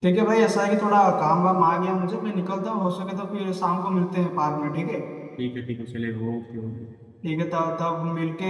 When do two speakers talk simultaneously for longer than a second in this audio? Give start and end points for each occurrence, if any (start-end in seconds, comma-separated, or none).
none